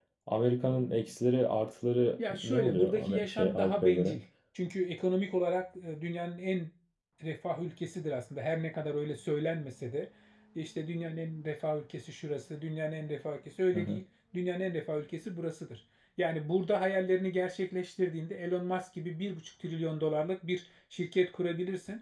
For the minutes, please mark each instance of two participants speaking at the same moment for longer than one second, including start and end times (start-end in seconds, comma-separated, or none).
2.3-4.2